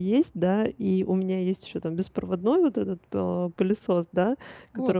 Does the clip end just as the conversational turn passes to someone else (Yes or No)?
No